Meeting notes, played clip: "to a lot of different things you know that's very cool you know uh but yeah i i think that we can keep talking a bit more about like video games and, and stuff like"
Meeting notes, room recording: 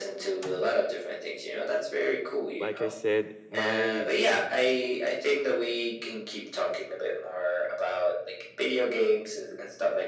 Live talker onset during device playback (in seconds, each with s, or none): 2.6 s